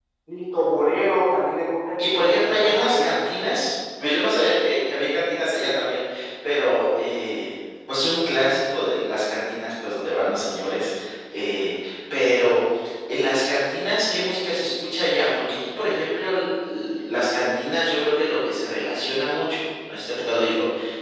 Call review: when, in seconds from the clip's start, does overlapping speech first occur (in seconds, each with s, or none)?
2.0 s